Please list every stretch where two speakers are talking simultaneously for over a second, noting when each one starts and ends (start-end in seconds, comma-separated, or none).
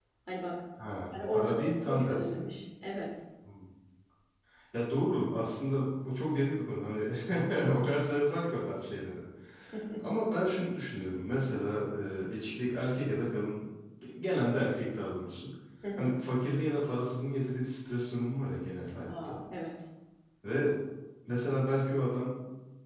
1.3-2.5